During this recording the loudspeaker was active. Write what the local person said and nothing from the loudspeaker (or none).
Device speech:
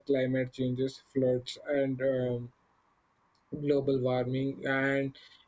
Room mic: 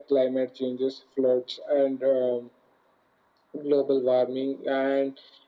none